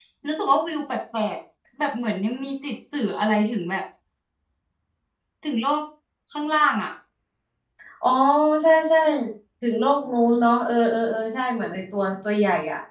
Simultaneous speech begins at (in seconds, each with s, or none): none